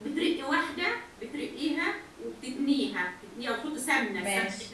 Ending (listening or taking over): listening